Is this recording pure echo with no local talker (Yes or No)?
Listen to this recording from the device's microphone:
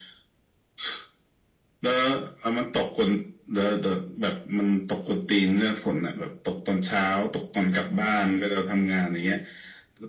Yes